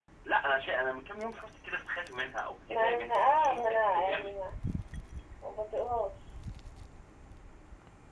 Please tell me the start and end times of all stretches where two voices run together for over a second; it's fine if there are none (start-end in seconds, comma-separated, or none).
2.7-4.3